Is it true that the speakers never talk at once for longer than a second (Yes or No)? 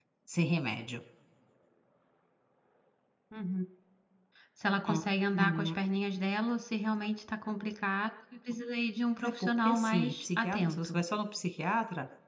No